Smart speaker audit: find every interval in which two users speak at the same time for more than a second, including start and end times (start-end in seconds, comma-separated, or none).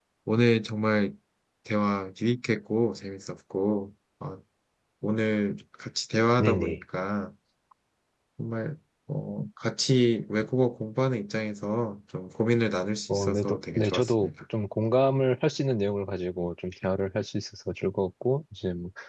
13.1-14.3